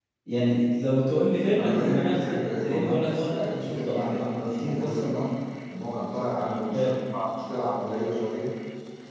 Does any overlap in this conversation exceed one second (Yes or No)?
Yes